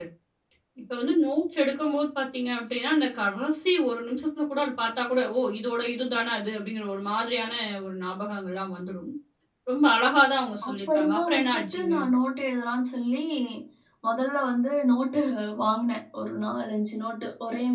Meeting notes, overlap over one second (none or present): present